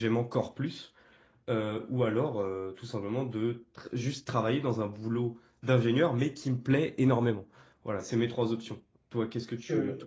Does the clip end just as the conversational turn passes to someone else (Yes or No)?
Yes